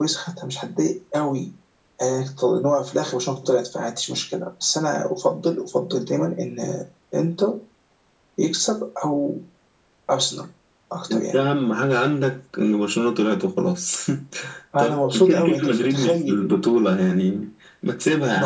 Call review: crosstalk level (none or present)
present